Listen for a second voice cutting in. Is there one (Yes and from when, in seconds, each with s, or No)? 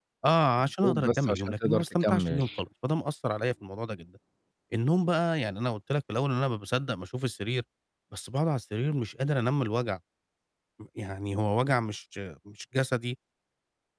Yes, from 0.8 s